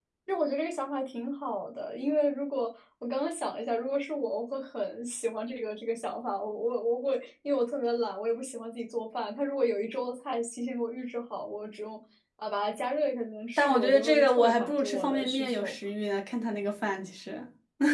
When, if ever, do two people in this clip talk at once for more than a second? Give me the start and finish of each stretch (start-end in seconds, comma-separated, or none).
13.6-15.7